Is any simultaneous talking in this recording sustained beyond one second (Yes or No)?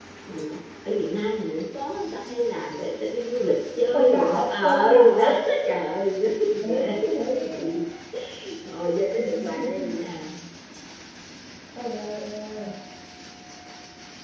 Yes